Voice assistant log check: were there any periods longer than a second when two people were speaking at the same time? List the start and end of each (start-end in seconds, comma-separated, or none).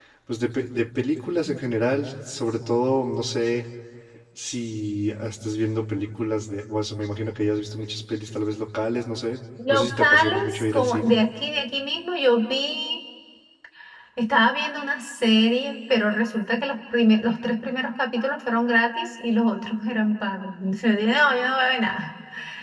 9.7-11.1